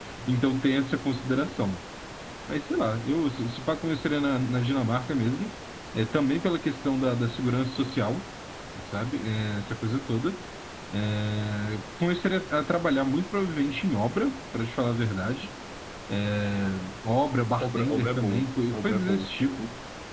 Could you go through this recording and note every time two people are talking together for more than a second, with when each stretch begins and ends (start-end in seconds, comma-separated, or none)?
17.6-19.3